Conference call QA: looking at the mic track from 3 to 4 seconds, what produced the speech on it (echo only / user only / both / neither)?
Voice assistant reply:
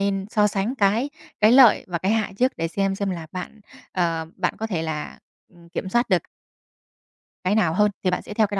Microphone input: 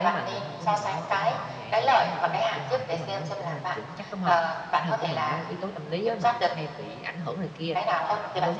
both